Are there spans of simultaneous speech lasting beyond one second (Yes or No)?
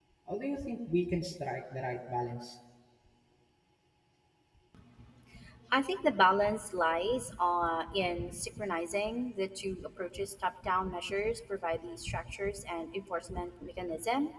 No